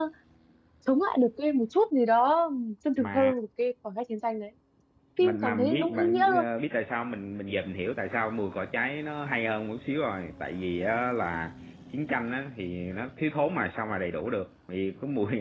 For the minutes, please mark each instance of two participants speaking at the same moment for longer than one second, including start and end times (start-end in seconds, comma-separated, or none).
5.2-6.5